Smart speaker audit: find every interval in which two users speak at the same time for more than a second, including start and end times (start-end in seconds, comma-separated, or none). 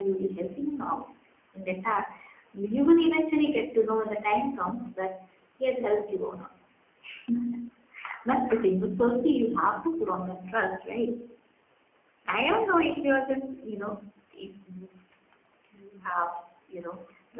none